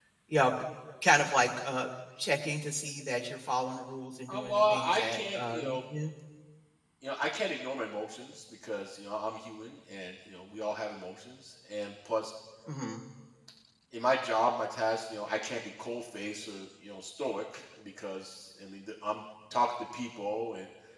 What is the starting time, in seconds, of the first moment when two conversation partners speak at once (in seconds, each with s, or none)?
4.3 s